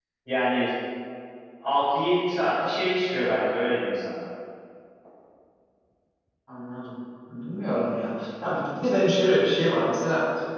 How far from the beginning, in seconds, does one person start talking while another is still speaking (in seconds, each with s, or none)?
none